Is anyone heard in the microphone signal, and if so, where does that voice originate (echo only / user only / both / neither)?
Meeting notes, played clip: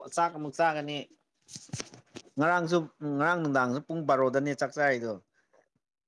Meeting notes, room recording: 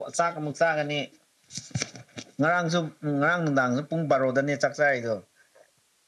echo only